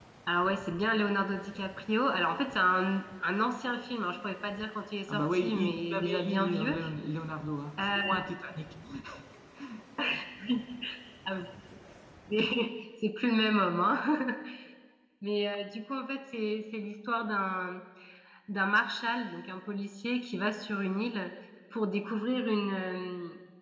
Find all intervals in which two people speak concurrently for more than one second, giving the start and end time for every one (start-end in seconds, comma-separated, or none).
5.1-6.8